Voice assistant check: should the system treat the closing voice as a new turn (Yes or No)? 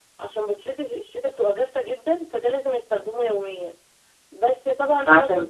No